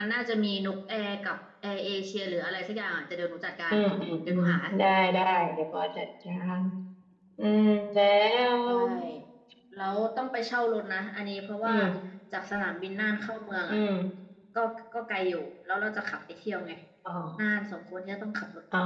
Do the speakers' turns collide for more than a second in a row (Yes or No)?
No